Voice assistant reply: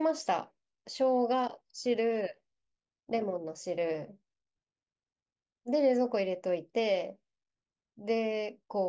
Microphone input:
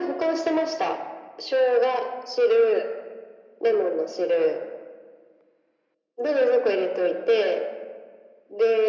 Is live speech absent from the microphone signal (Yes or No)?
Yes